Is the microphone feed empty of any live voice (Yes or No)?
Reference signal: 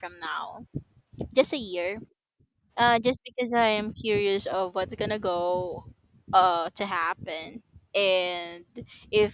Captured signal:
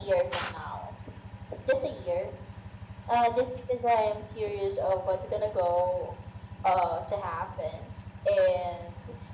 Yes